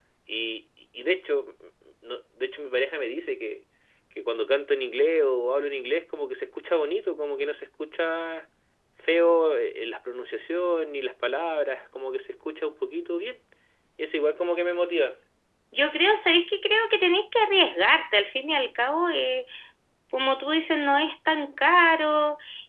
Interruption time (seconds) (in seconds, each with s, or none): none